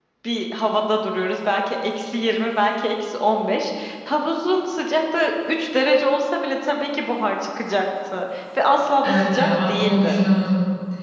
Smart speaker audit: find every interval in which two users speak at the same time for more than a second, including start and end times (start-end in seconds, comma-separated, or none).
9.0-10.2